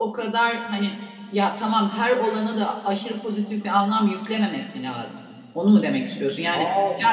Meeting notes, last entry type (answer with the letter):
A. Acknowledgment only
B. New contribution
A